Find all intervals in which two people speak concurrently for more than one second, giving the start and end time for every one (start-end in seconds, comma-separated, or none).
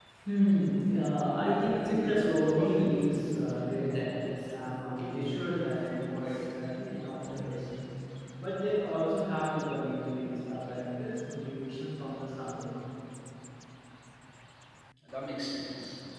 1.7-2.9